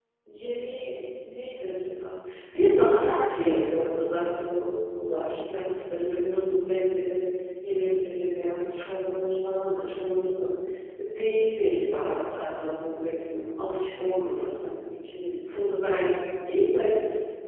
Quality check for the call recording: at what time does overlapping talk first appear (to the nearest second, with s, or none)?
none